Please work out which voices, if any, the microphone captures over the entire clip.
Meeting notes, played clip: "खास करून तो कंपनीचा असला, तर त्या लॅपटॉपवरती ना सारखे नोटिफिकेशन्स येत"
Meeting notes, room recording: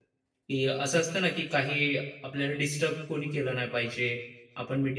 user only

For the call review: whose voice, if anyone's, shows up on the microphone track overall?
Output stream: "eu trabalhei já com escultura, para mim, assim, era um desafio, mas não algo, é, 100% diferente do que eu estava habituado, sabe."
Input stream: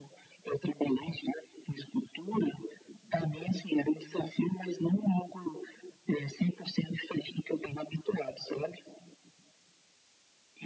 echo only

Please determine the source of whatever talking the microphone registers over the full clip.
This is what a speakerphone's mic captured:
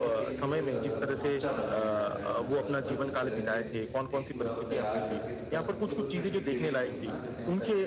both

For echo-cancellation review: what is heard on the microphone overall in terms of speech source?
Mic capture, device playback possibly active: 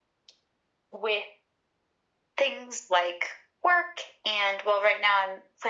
echo only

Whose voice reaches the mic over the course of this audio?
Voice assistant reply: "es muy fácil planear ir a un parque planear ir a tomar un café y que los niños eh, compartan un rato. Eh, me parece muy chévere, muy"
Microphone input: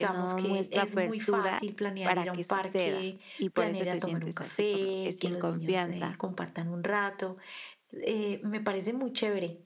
both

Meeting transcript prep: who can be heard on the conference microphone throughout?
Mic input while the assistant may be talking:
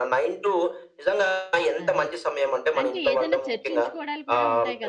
both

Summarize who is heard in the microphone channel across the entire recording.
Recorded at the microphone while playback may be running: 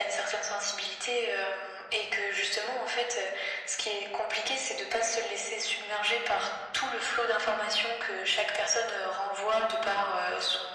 echo only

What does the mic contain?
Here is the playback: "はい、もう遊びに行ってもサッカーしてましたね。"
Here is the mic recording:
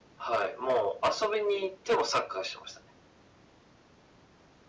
echo only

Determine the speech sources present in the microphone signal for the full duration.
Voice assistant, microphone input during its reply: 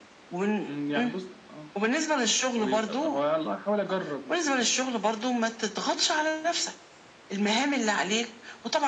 echo only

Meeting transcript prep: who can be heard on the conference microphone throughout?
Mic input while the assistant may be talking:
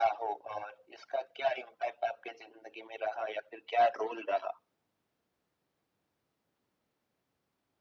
echo only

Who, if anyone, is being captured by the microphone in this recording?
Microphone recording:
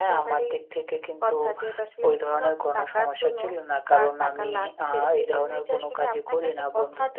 echo only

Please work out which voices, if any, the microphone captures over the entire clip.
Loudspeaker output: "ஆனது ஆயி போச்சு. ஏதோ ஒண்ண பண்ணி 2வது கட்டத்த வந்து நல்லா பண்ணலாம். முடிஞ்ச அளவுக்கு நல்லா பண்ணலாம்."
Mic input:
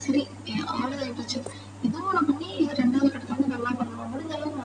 echo only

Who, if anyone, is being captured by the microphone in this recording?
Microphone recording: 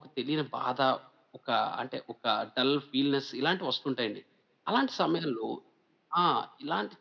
echo only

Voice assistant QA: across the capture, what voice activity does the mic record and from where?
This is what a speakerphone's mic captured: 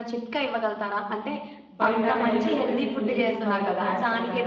both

